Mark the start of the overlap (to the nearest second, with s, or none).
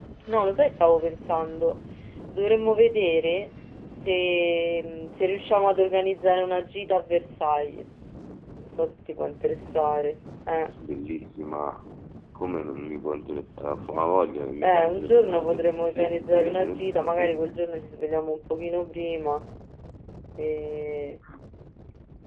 15 s